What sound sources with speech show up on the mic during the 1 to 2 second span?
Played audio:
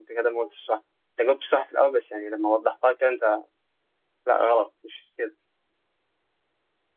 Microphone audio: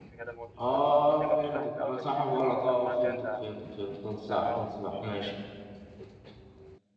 both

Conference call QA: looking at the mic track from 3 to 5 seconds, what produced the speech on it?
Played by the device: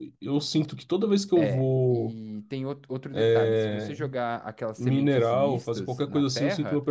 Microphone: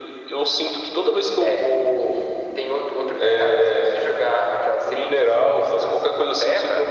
echo only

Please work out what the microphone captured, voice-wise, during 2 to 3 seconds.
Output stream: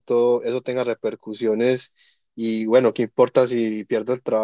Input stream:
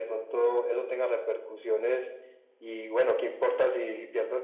echo only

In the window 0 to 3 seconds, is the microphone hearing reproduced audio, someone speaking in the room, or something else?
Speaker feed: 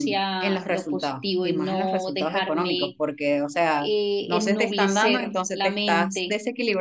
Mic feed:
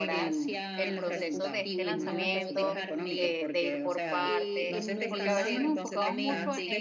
both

